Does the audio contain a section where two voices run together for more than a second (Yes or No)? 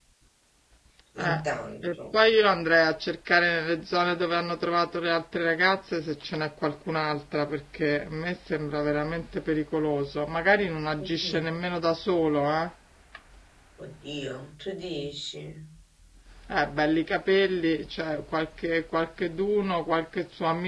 No